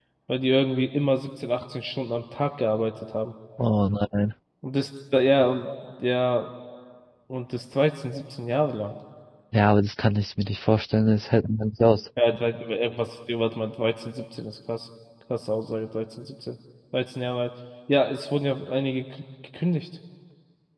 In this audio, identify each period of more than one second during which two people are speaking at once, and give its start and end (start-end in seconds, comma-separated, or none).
none